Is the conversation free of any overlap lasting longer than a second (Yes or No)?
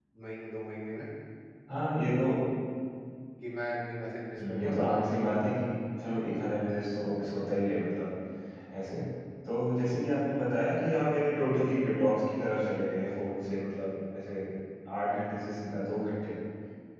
No